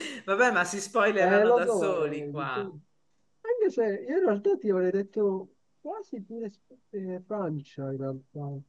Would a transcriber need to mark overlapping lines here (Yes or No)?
Yes